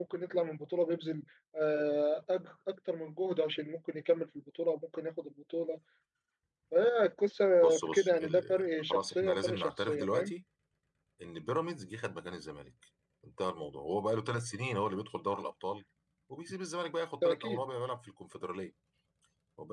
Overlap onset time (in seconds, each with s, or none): 7.6 s